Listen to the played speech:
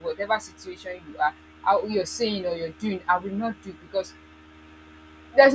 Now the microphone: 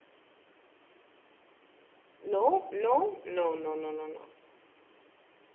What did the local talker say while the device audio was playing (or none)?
no, no, no, no, no, no, no.